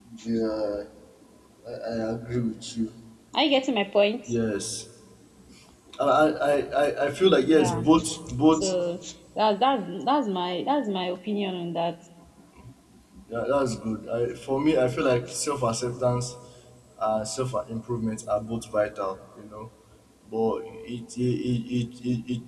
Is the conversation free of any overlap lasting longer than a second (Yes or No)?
Yes